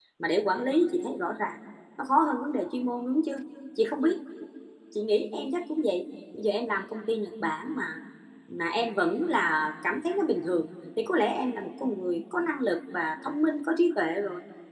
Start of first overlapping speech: none

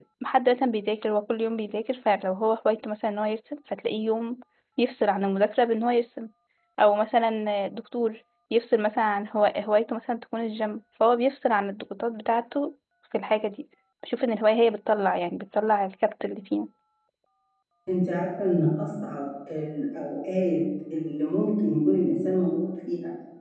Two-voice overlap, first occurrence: none

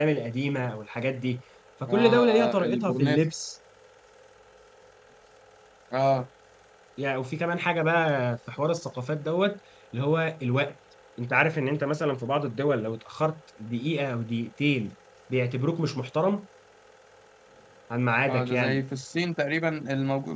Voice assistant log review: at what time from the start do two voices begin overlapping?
1.9 s

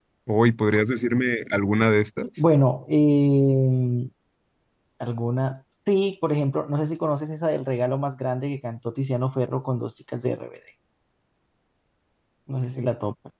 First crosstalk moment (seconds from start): none

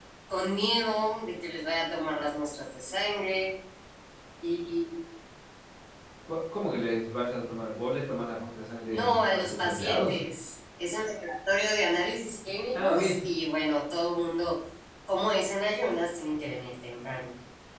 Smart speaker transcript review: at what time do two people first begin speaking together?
8.9 s

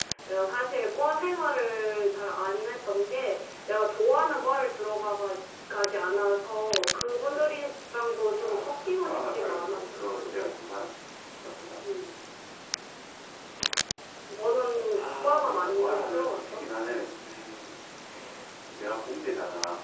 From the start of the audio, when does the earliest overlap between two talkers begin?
8.4 s

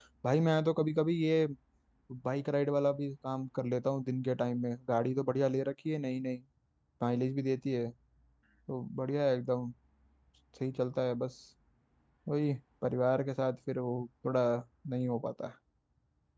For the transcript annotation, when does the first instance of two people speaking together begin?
none

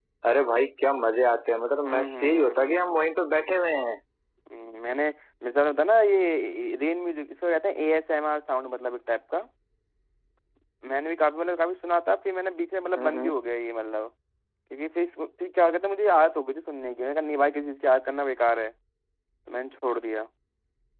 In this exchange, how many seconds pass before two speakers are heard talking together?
1.8 s

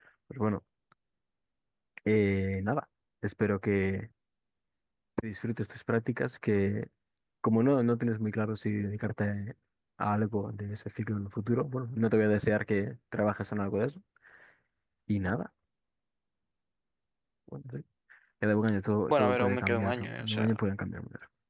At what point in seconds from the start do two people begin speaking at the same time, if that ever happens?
19.1 s

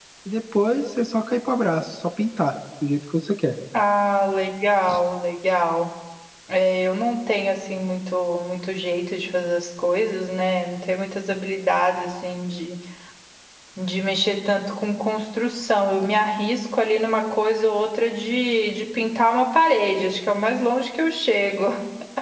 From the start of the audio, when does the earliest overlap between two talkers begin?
none

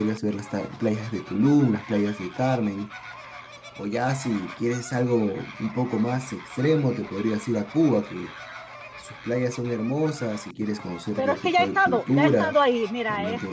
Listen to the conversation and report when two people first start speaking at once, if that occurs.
11.2 s

